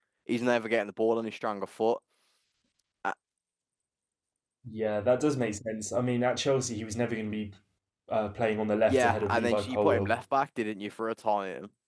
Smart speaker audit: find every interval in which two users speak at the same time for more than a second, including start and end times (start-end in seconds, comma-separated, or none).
8.9-10.2